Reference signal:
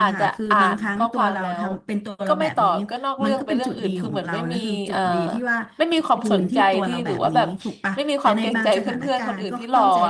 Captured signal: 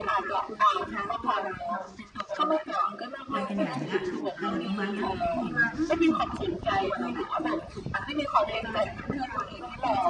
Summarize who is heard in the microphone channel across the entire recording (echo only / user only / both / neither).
both